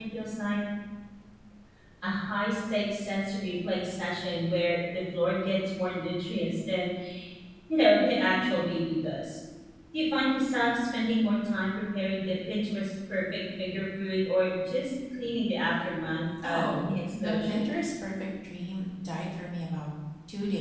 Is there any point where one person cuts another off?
Yes, from 16.4 s

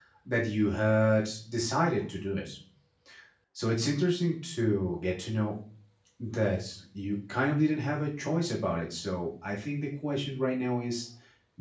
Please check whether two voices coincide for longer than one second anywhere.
No

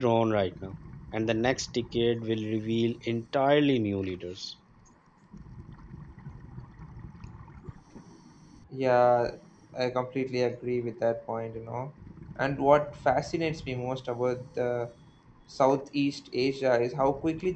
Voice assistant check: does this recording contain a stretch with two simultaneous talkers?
No

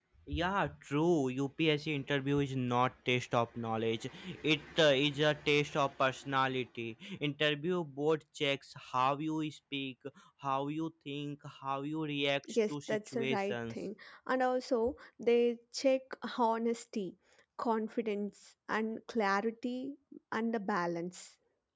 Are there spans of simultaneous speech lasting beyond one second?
Yes, from 12.4 s

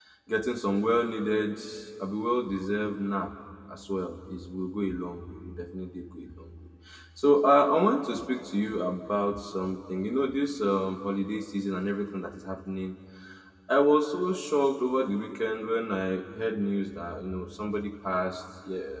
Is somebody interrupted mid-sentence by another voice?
No

